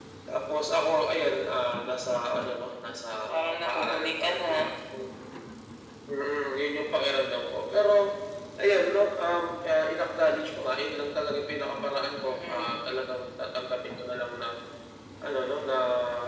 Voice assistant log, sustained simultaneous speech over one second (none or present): present